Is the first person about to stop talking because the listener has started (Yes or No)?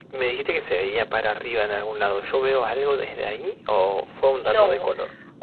Yes